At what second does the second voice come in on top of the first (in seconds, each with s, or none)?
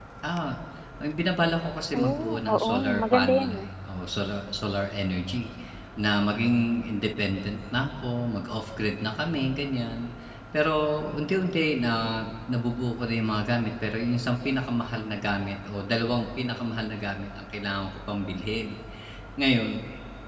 1.9 s